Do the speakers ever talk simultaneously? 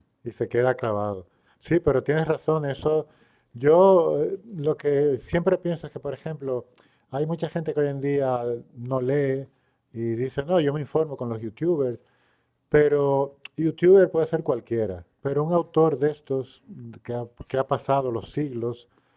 No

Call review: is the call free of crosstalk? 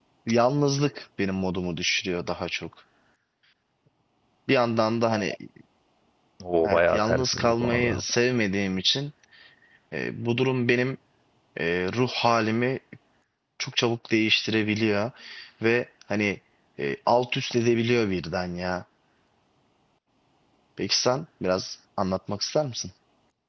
No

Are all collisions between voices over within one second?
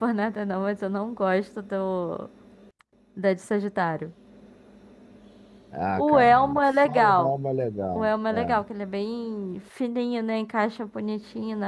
No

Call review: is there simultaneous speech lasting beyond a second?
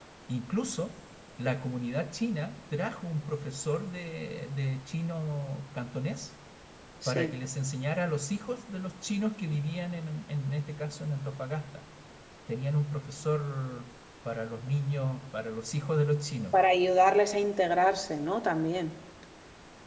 No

